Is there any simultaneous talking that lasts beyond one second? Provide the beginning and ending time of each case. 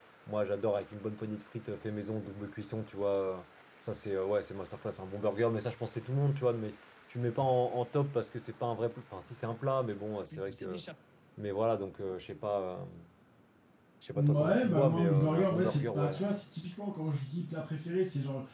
14.2-16.1

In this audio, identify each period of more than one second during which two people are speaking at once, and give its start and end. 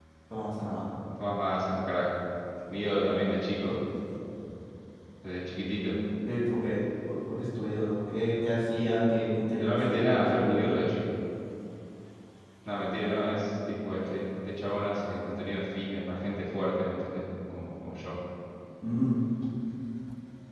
9.5-10.8

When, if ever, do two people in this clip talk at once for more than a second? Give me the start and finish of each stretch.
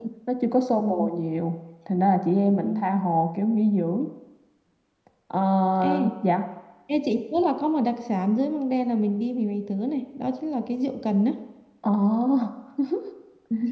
none

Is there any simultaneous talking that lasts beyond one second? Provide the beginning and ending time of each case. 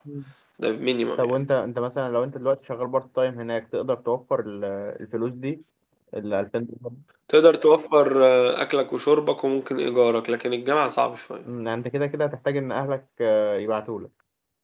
none

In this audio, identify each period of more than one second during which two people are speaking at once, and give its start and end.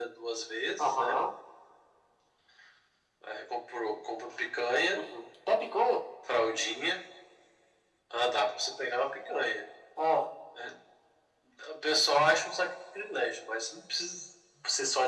none

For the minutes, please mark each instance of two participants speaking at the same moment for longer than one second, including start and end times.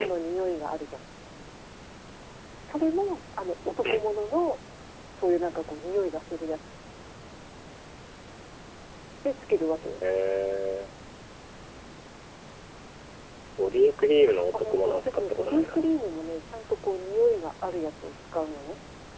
14.5-15.9

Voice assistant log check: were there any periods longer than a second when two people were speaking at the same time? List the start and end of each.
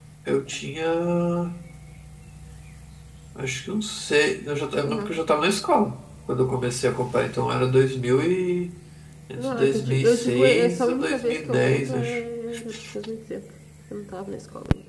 9.4-12.2

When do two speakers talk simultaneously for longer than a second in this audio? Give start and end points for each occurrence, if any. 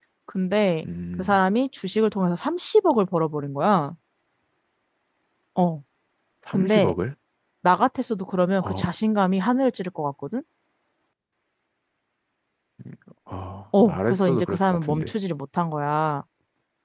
13.8-15.1

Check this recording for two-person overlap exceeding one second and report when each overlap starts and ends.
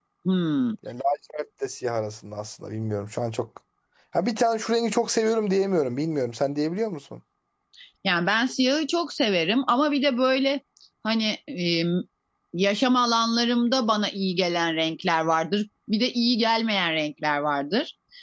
none

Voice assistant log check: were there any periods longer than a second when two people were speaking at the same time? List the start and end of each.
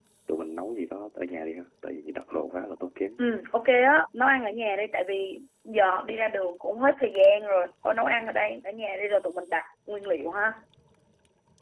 none

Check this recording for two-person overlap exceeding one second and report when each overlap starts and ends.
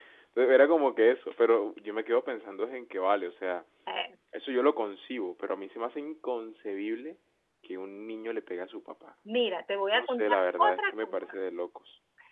9.9-11.2

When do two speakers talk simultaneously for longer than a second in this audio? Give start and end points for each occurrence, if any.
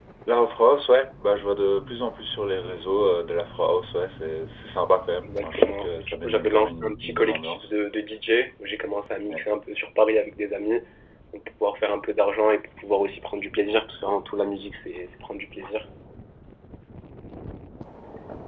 5.2-7.7

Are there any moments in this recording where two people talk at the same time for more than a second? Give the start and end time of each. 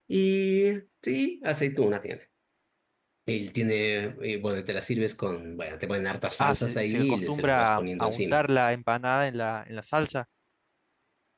6.4-8.4

